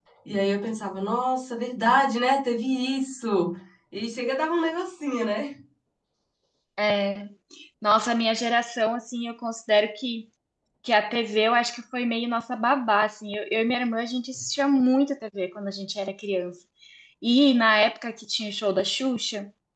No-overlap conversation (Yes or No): Yes